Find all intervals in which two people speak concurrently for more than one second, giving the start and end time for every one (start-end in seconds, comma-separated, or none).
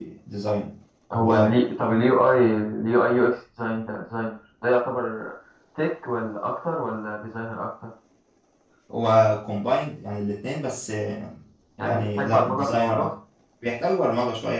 11.8-13.1